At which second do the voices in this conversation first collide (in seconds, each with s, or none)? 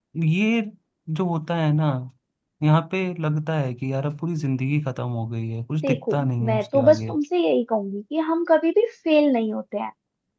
5.8 s